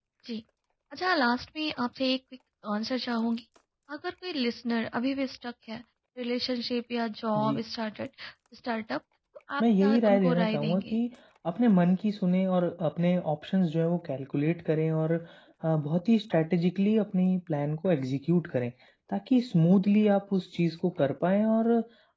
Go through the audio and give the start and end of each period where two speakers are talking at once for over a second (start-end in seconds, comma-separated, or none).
9.6-11.0